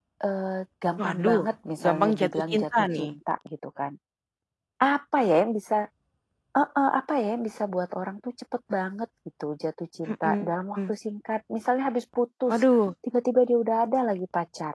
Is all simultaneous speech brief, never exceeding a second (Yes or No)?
No